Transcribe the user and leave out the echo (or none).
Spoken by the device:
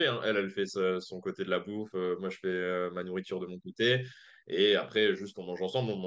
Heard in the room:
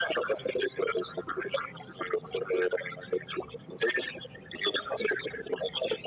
none